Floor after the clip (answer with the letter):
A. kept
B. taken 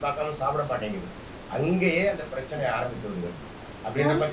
B